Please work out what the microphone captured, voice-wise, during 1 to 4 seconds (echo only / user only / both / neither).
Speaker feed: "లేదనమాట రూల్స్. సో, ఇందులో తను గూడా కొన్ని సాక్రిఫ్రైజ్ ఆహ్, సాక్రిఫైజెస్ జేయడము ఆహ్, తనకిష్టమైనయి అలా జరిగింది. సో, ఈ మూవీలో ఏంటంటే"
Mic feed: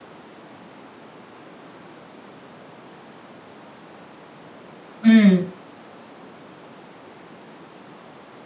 neither